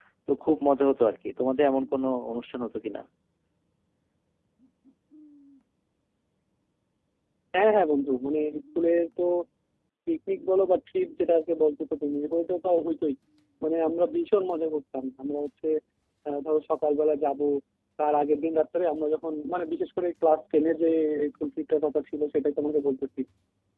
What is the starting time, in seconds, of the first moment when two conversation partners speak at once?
none

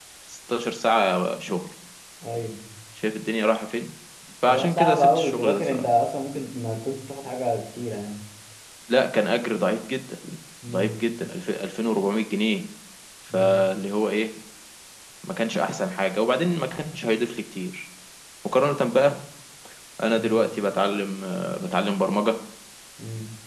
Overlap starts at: 4.4 s

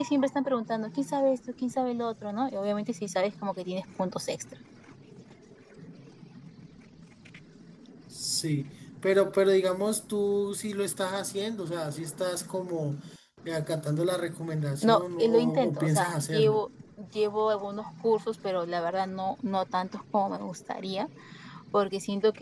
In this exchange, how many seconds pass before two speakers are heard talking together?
14.8 s

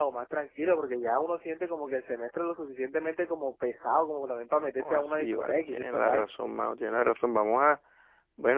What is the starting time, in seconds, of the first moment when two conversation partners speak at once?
4.8 s

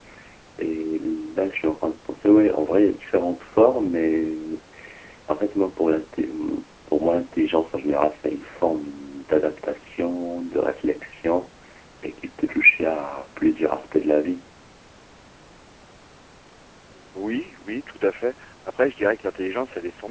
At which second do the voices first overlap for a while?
none

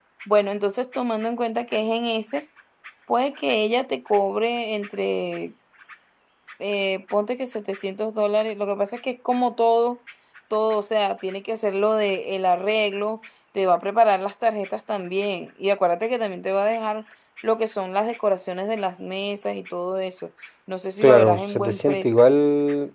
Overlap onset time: 21.0 s

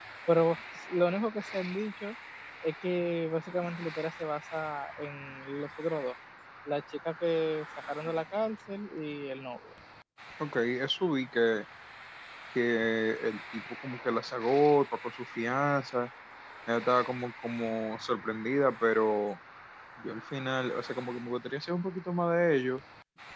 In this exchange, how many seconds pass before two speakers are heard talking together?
none

